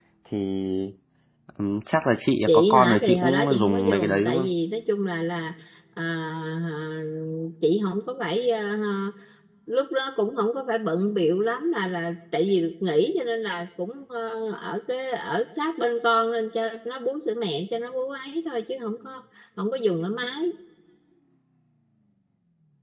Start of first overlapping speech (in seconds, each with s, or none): 2.5 s